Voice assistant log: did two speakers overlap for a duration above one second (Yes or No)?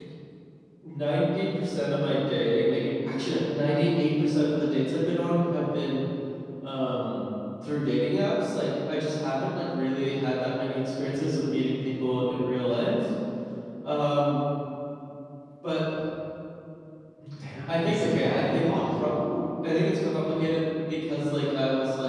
Yes